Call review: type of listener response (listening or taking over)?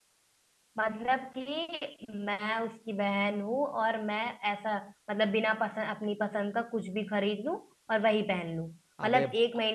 listening